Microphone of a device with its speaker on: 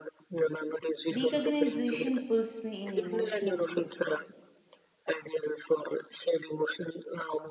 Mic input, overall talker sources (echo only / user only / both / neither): both